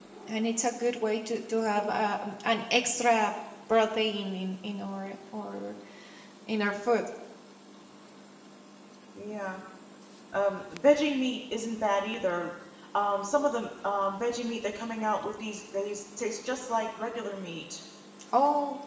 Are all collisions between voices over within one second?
Yes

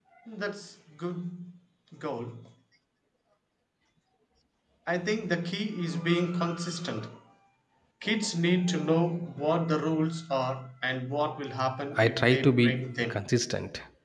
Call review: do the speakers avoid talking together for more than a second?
No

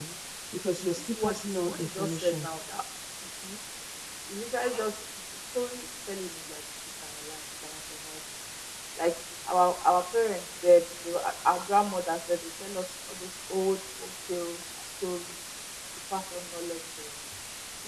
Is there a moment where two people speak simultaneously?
Yes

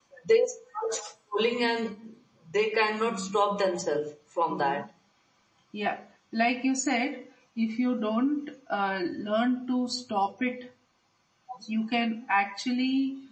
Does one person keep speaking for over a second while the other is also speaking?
No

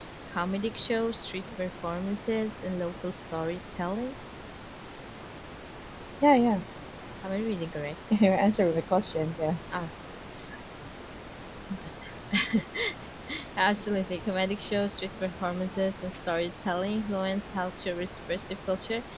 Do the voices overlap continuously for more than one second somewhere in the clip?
No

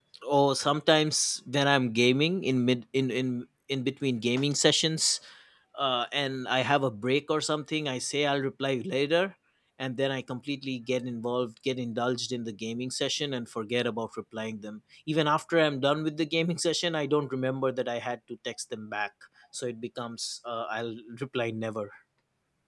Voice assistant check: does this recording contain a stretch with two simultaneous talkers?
No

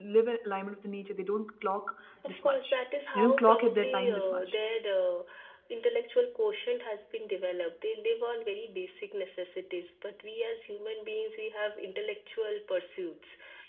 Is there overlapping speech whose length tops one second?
Yes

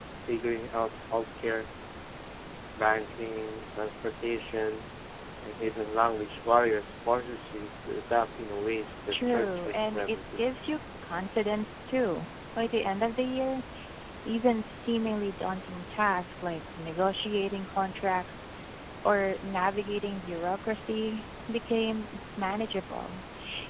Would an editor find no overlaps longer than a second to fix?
No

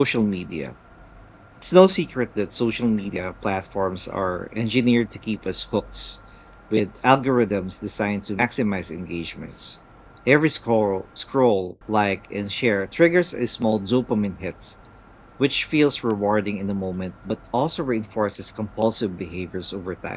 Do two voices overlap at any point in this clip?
No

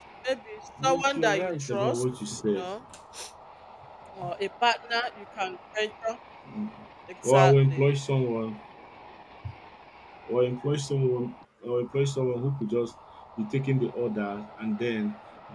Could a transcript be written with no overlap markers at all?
No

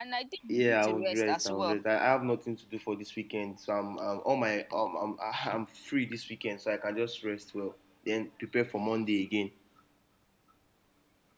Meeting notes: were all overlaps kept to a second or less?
No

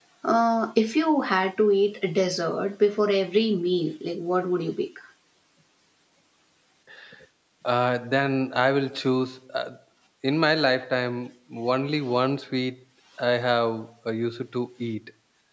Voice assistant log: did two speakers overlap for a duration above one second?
No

